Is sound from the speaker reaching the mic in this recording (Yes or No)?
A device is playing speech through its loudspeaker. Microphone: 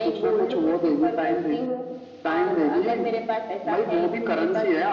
Yes